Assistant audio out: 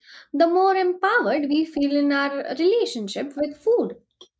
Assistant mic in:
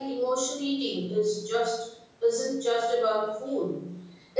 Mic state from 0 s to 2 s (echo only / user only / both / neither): user only